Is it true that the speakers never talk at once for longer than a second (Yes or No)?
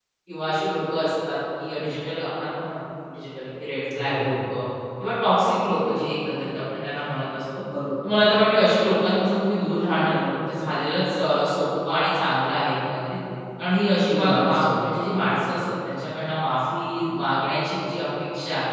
No